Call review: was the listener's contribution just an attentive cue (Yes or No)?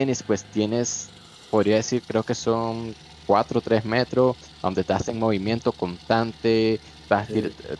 Yes